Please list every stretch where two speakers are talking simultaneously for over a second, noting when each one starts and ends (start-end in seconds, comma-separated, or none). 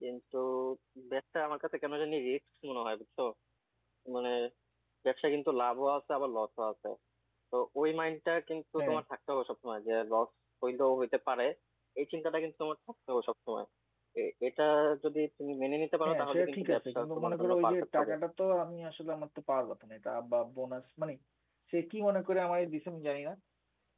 16.1-18.1